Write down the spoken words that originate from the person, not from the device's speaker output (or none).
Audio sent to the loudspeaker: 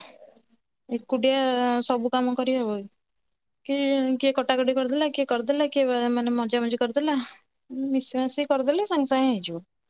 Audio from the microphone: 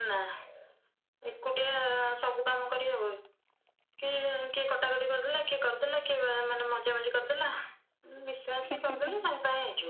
ହୁଁ ହୁଁ ହୁଁ।